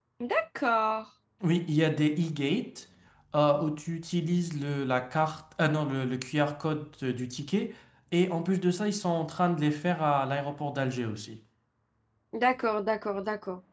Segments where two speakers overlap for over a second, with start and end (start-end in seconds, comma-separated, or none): none